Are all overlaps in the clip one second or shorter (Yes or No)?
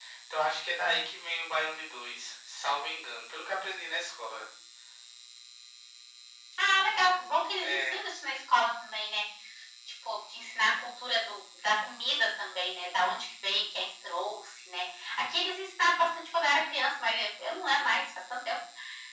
Yes